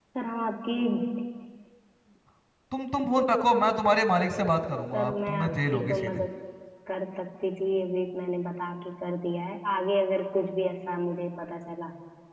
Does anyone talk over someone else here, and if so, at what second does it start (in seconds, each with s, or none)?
4.9 s